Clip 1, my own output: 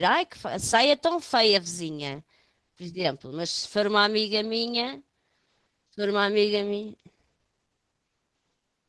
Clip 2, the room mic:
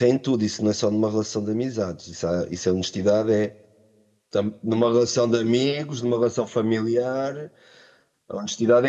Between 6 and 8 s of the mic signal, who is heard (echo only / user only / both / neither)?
user only